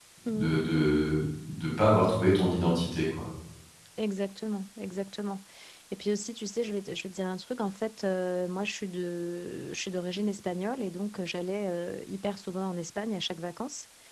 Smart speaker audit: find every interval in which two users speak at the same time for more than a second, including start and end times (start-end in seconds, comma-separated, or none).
none